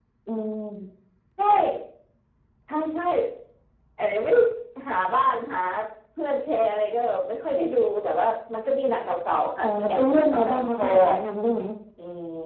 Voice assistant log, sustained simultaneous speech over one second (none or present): present